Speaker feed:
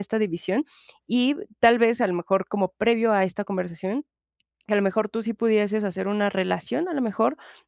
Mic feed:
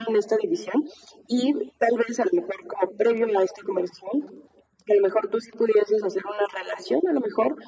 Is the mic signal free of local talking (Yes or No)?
Yes